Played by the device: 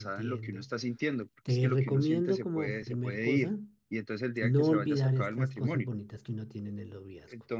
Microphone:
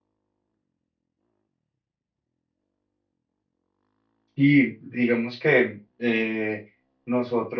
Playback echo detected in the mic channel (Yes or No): No